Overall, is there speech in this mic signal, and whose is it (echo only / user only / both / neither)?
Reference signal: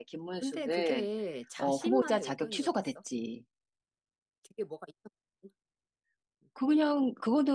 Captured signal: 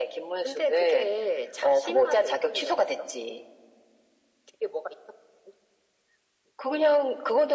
echo only